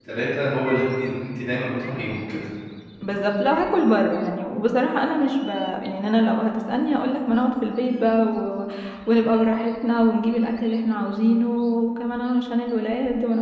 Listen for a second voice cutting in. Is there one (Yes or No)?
No